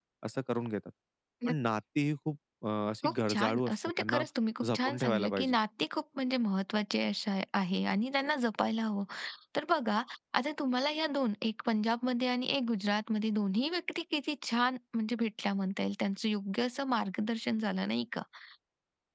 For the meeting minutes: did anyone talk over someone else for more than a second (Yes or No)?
Yes